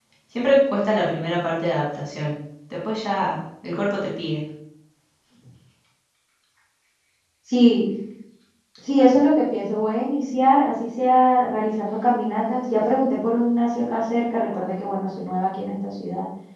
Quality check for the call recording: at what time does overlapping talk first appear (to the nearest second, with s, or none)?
none